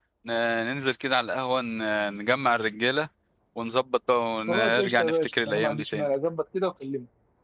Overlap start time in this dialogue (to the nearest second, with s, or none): 4 s